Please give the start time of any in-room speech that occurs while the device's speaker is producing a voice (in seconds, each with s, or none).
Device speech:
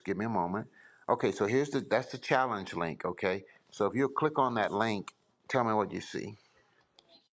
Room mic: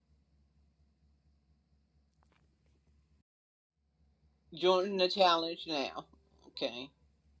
4.5 s